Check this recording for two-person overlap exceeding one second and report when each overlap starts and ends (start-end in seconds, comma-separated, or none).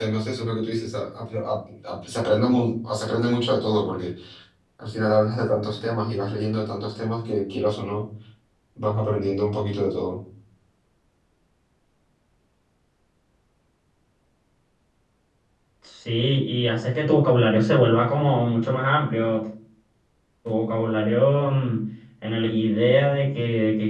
none